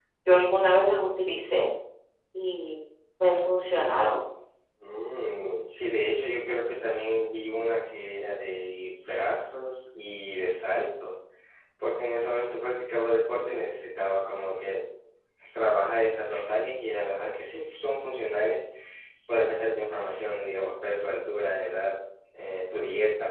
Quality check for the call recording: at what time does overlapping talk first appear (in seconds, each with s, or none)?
none